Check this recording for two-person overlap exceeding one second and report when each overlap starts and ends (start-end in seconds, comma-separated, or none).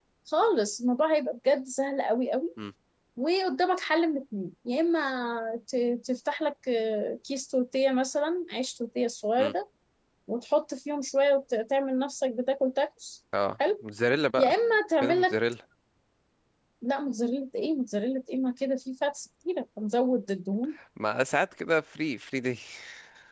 none